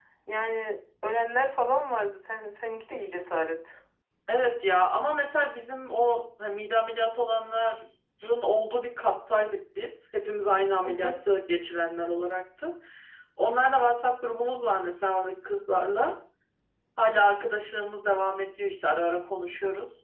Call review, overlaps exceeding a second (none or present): none